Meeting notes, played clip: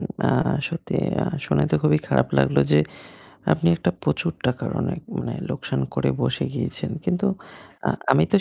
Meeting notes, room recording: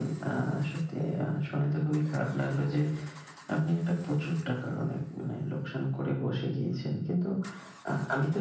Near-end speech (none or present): none